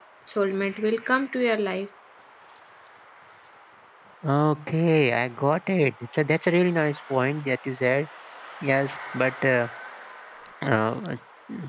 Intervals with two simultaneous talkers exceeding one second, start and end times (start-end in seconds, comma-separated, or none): none